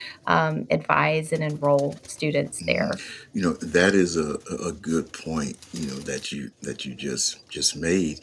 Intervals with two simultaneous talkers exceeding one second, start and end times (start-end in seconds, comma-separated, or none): none